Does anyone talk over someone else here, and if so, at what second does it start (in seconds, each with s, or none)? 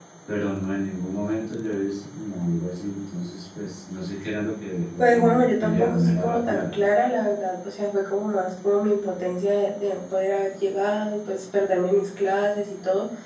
5.0 s